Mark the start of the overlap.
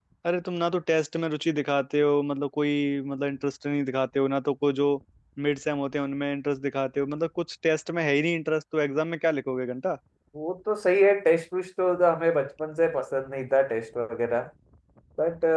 none

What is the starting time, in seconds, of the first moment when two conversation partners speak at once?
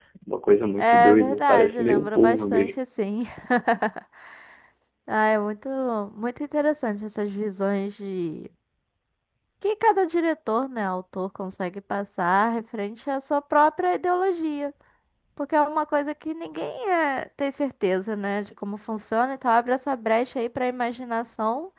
1 s

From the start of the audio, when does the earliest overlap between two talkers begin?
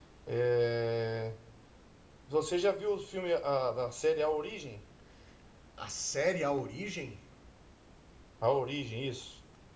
none

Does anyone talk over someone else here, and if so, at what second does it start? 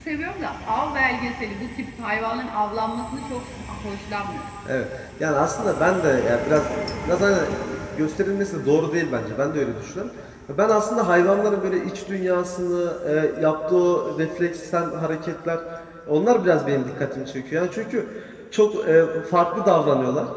none

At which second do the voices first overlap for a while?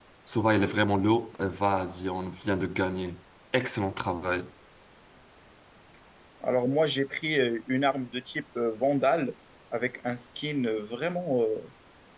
none

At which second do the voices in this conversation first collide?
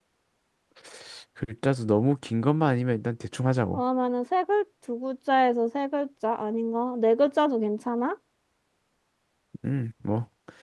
none

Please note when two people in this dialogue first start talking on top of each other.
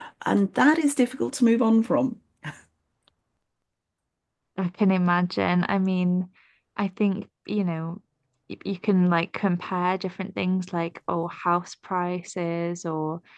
none

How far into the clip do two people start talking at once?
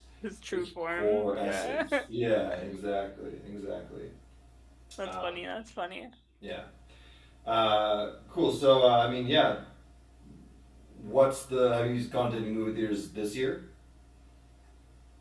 1 s

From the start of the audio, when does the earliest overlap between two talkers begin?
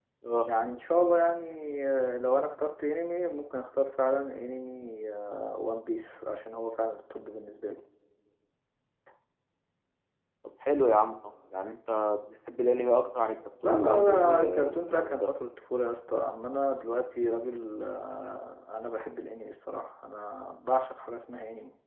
14 s

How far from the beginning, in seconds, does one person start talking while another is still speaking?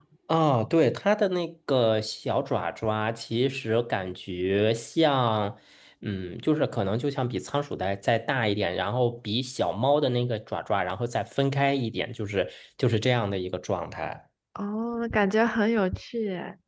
none

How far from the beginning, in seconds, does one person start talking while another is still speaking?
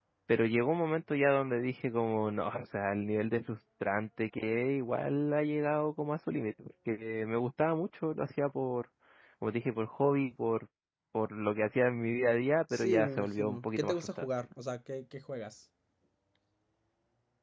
13 s

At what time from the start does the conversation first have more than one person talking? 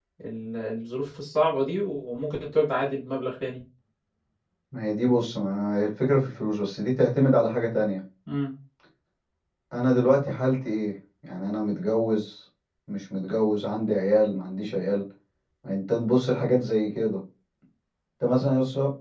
none

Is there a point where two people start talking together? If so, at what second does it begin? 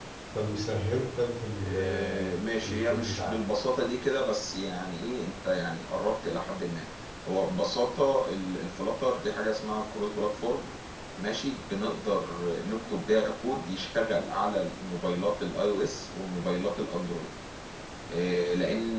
2 s

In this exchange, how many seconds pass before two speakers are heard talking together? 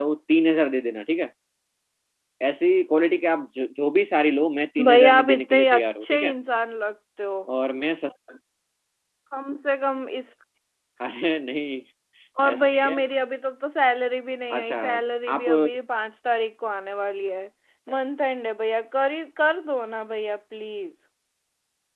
5 s

